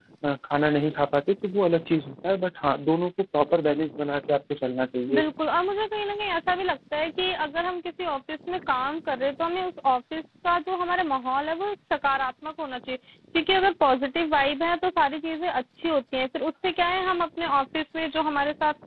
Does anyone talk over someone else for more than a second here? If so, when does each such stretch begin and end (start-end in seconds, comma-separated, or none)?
none